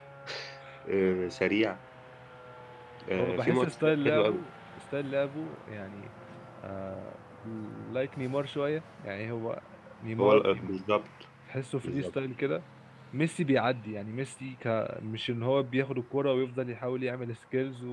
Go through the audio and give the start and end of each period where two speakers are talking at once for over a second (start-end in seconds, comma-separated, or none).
3.1-4.4